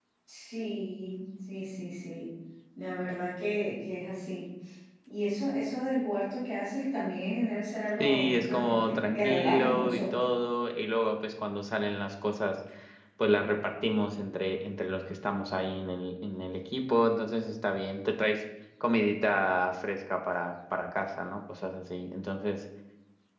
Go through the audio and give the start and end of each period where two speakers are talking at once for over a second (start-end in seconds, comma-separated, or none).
8.0-10.0